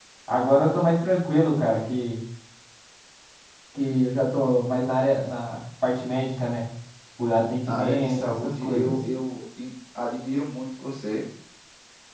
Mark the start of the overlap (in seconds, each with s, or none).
7.7 s